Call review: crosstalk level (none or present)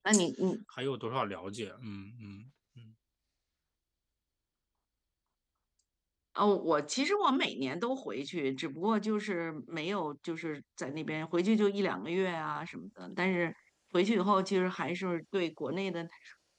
none